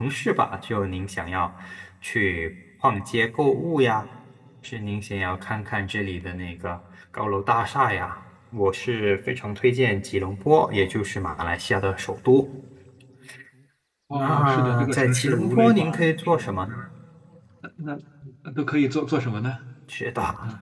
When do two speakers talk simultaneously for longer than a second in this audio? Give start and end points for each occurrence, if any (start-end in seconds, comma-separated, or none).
14.1-16.5